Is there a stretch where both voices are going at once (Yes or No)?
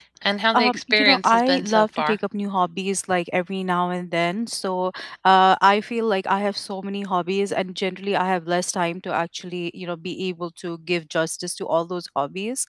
Yes